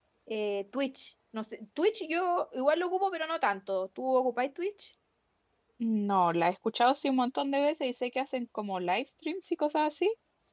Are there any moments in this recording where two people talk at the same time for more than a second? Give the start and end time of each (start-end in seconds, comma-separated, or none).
none